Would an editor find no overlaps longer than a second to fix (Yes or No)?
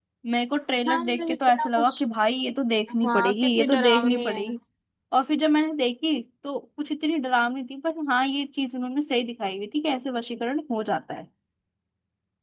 No